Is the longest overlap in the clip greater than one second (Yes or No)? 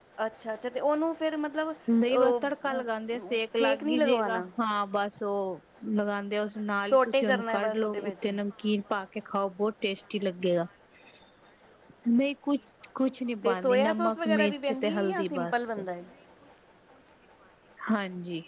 Yes